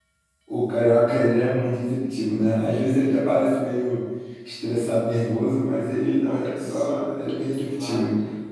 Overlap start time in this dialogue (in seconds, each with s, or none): 6.0 s